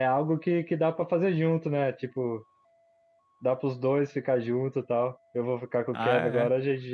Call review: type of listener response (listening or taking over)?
listening